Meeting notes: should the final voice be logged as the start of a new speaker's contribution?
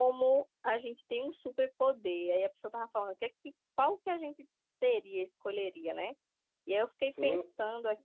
No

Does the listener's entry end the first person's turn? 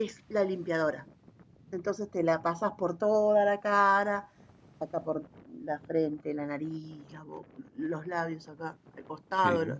Yes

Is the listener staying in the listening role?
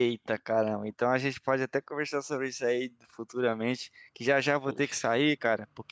Yes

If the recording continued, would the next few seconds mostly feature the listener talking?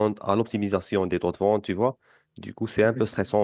No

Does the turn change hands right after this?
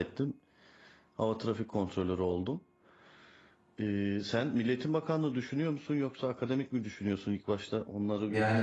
Yes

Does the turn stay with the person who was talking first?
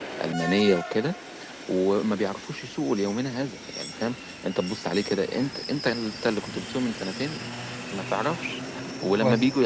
Yes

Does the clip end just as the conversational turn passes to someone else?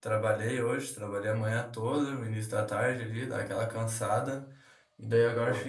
No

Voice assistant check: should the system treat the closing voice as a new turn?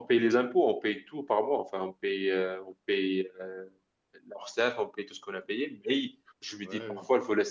No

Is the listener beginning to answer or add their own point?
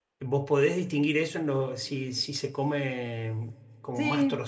No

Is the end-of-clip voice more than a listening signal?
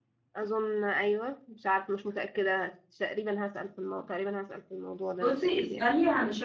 Yes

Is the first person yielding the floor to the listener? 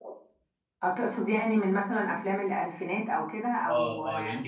Yes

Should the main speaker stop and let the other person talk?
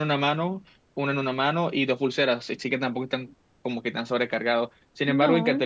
No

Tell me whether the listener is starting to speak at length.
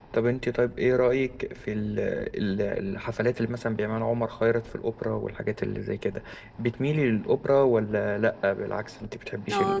Yes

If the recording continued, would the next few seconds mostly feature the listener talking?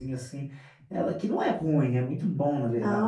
Yes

